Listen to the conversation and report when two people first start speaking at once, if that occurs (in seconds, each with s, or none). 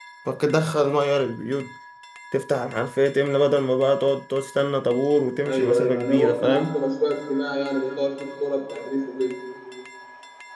5.4 s